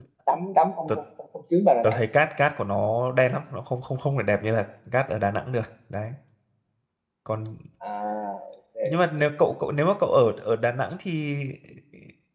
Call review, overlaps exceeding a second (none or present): none